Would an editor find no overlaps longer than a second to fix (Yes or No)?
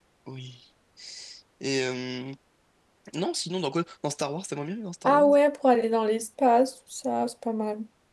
Yes